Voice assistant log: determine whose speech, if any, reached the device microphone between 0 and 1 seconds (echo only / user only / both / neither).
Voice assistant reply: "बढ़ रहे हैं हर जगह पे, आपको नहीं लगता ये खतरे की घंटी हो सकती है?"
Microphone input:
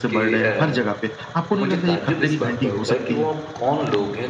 both